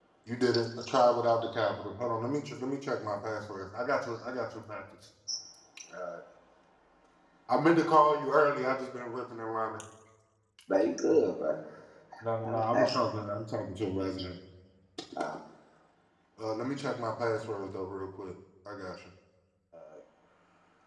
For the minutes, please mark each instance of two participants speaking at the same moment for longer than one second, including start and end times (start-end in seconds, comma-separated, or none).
none